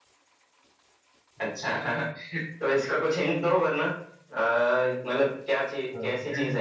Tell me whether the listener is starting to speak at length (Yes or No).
Yes